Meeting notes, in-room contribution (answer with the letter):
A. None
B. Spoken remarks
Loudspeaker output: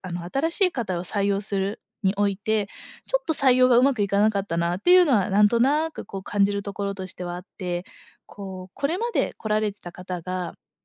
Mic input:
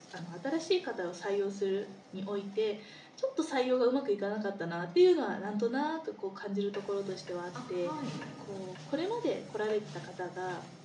B